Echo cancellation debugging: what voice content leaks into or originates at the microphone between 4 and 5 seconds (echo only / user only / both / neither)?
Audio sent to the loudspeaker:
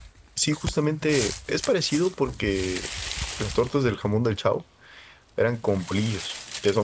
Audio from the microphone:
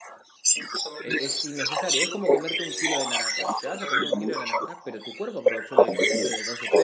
both